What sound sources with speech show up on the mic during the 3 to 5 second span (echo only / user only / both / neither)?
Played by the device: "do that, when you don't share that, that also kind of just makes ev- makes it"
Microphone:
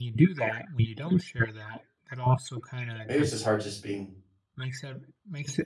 both